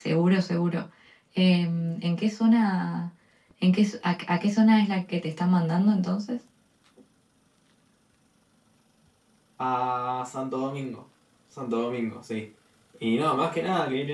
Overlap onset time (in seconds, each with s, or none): none